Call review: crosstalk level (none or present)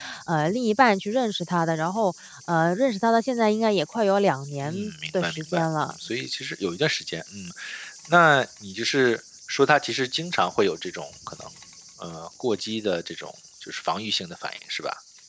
present